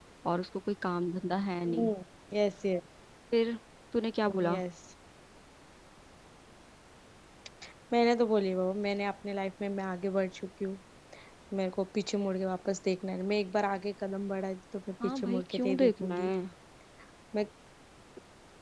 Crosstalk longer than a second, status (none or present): present